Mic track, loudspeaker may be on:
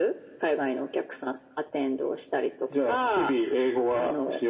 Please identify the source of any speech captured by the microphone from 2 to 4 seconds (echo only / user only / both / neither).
echo only